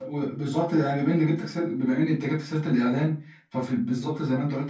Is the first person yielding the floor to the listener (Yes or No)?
No